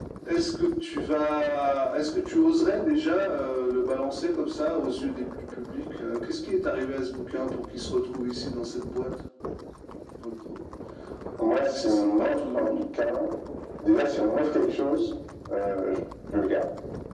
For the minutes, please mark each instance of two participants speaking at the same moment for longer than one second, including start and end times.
11.6-12.8

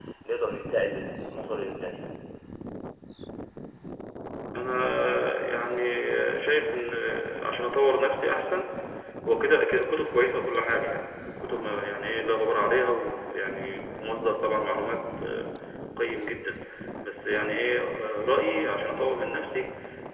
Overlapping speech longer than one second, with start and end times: none

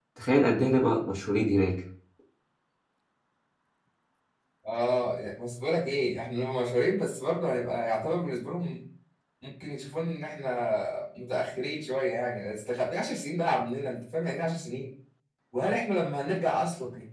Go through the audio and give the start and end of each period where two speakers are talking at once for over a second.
none

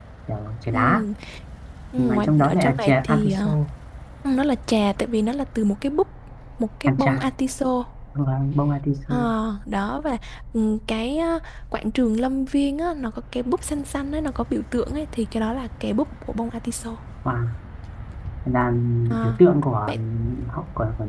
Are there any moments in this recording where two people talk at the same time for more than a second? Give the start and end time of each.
2.0-3.5

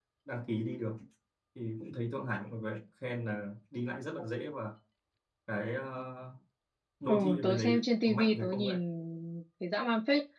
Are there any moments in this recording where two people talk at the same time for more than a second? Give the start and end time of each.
7.1-8.8

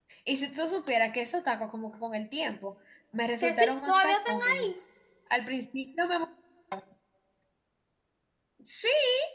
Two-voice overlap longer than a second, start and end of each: 3.4-4.8

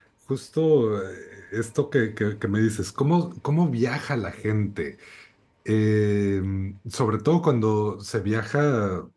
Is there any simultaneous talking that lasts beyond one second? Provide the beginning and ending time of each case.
none

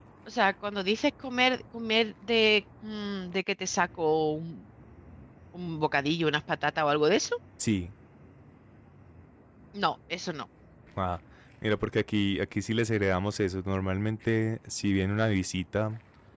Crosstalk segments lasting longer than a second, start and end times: none

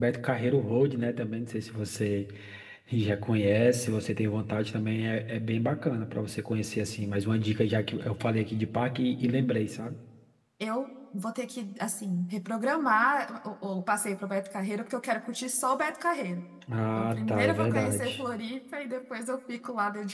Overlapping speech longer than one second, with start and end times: 17.0-18.2

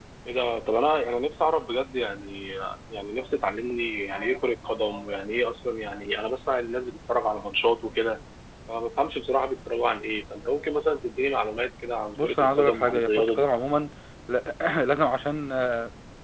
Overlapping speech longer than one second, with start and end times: 12.2-13.5

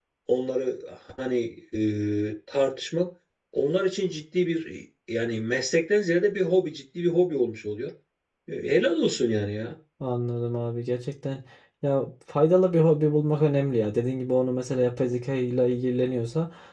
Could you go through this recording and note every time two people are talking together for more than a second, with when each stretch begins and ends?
none

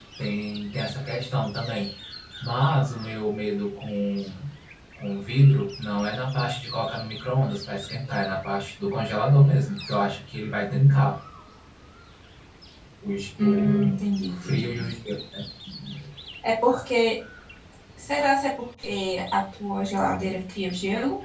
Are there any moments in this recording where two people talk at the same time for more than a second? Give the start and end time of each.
13.4-14.8

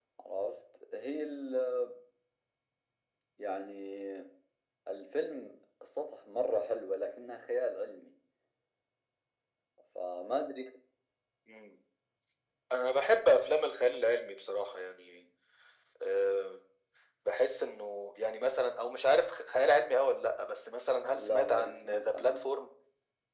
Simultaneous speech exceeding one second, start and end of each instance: 21.2-22.5

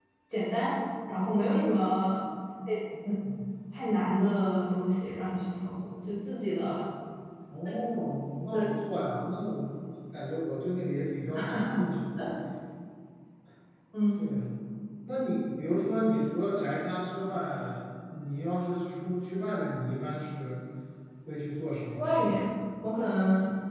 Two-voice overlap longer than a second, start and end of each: none

